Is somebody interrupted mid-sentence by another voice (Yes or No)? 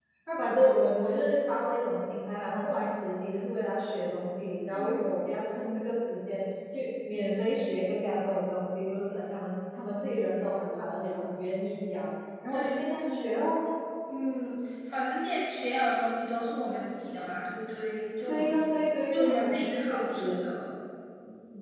Yes